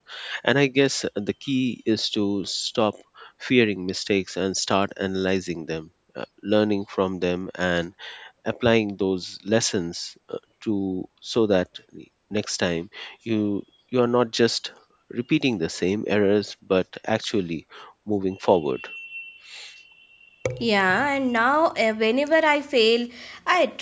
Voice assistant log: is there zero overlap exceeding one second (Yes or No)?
Yes